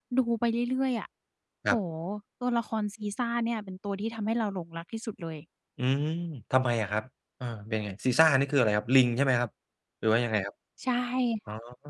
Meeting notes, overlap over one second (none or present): none